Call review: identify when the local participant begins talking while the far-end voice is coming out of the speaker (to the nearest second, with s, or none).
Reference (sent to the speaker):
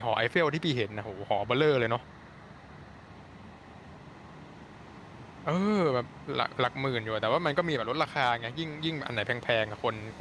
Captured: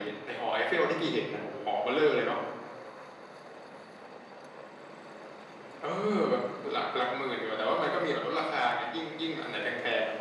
none